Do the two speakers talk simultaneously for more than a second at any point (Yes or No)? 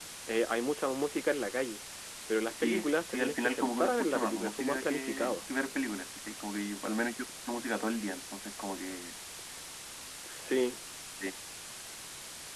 Yes